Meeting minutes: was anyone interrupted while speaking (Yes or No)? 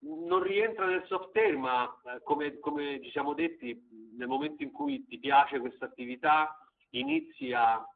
No